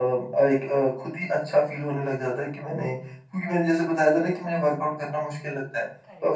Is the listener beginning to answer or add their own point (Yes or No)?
No